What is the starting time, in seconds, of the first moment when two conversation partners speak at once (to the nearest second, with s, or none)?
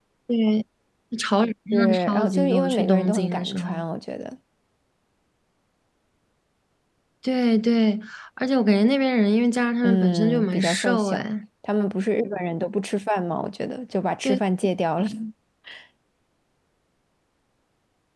2 s